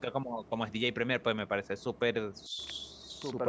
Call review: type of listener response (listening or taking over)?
taking over